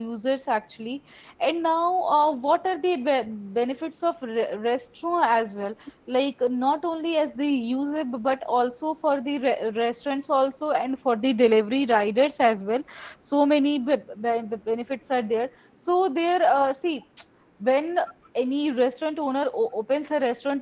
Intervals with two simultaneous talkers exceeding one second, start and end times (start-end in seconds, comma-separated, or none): none